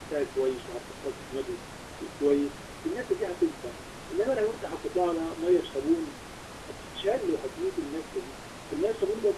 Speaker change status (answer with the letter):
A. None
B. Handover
A